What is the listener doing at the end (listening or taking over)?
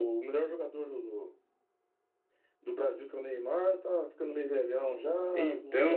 listening